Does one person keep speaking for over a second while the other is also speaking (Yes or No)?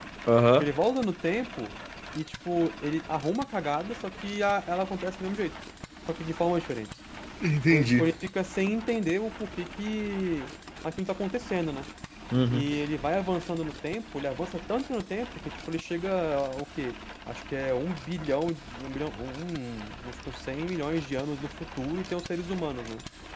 No